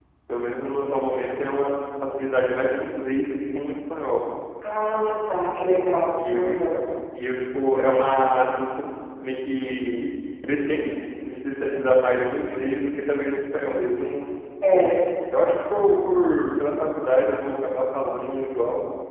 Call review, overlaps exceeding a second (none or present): none